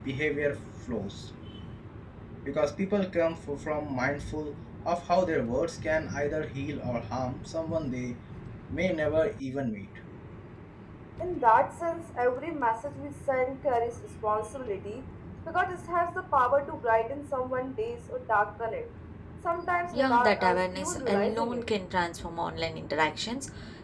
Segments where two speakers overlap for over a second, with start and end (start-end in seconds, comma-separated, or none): 19.9-21.7